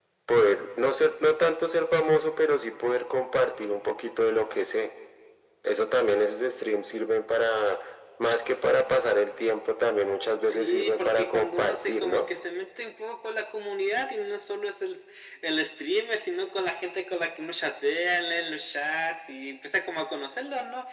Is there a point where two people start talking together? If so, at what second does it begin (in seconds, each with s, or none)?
10.4 s